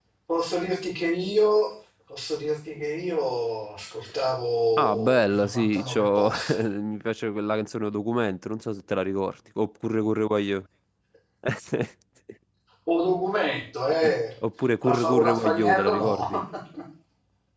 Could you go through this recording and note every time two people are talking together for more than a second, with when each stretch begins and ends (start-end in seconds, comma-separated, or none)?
4.8-6.7, 14.8-16.3